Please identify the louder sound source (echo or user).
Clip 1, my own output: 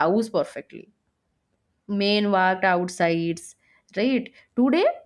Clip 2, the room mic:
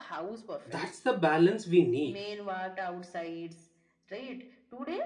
user